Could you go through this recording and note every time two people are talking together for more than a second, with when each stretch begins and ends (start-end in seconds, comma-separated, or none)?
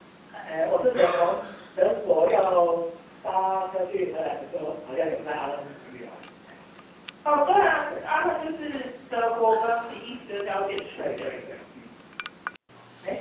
none